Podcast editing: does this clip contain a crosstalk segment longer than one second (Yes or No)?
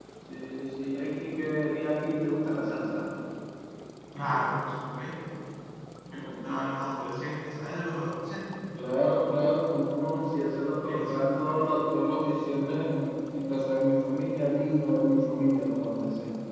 No